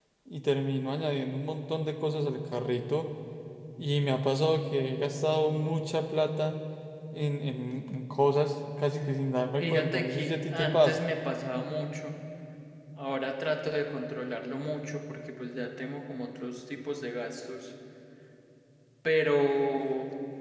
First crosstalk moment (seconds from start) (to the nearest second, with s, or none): 10 s